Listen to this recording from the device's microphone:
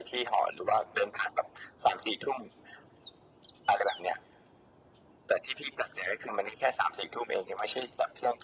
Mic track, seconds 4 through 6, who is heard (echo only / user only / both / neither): echo only